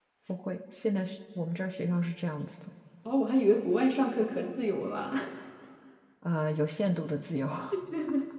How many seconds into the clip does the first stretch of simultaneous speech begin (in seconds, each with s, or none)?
none